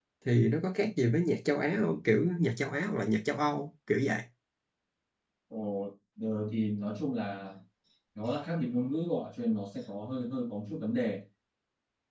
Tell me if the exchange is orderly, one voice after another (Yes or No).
Yes